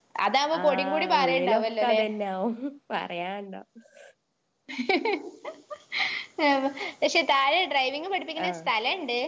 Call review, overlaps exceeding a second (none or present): present